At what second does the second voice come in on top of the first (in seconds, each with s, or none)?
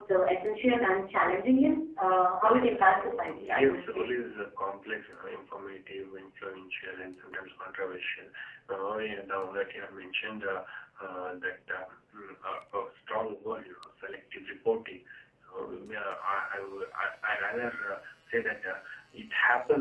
2.4 s